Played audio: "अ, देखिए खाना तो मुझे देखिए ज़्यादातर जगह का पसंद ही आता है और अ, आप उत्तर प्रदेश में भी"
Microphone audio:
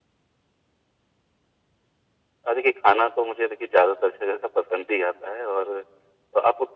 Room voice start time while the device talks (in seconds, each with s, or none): none